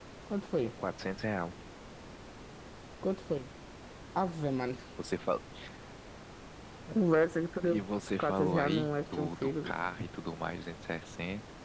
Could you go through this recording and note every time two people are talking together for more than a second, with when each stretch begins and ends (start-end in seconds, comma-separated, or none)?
8.2-9.8